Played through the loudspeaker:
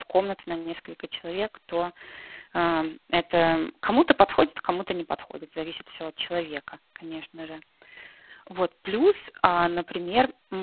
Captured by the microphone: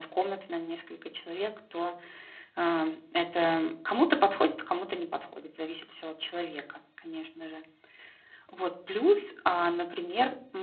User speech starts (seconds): none

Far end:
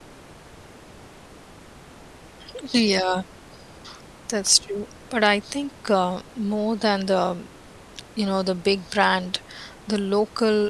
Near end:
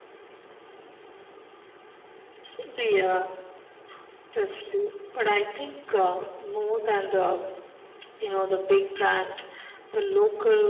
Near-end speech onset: none

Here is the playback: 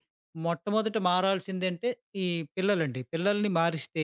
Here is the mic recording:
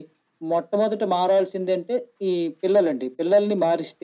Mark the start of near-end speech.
none

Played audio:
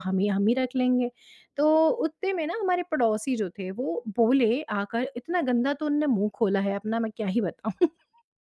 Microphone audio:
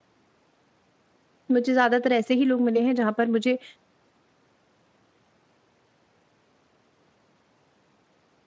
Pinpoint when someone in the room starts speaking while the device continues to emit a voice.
1.5 s

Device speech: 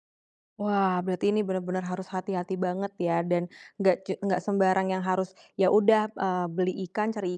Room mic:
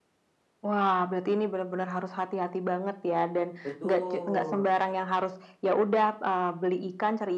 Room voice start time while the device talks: 3.6 s

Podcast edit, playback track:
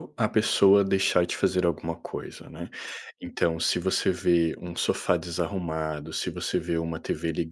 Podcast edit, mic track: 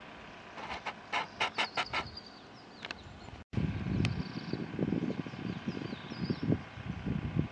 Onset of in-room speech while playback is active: none

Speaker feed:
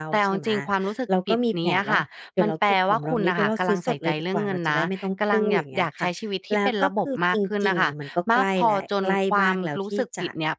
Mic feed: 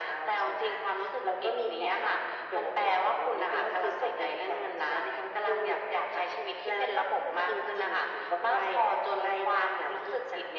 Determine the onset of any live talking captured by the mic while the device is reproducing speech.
none

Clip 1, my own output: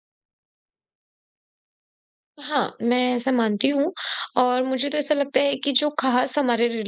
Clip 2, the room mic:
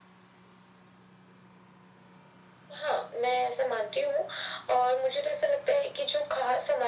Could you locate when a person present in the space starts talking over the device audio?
none

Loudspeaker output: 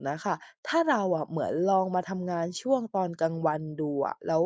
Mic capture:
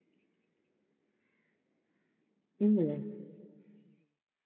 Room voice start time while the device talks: 2.6 s

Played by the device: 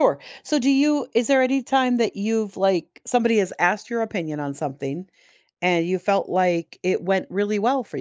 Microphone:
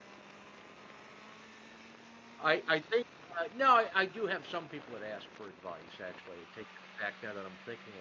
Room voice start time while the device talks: 2.4 s

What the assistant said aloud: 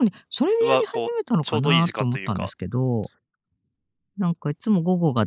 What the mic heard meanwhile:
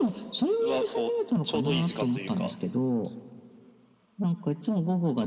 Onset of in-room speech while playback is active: none

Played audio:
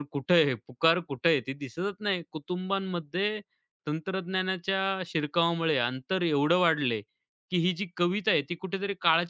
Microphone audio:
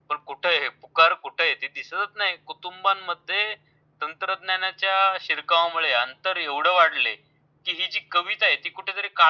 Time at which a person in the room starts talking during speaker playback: none

